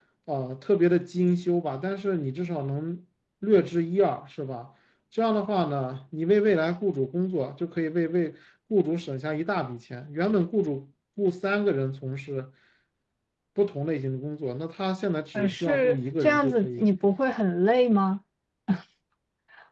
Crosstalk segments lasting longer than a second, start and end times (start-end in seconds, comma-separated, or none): 15.4-16.9